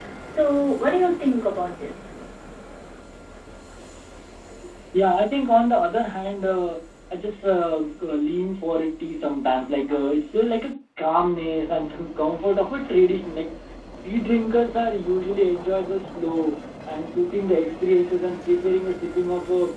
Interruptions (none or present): none